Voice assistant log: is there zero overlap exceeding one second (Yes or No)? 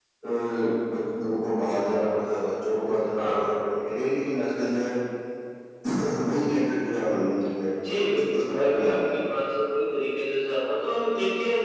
No